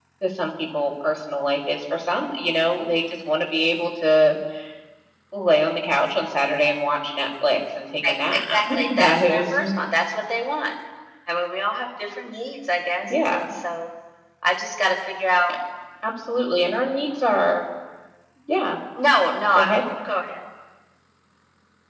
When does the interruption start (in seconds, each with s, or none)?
8.1 s